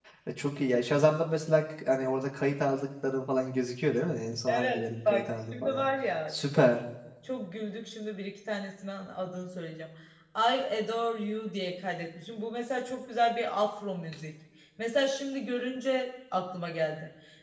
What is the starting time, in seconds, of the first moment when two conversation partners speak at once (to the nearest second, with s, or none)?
4 s